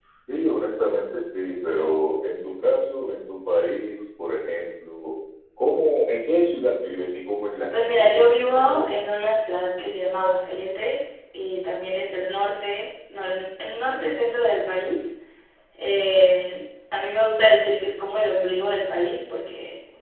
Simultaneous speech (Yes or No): Yes